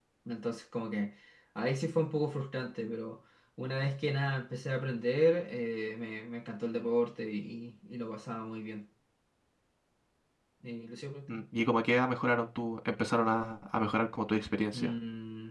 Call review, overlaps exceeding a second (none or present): none